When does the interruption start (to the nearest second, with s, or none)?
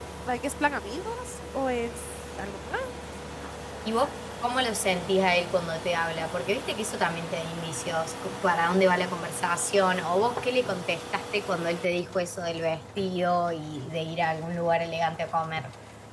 none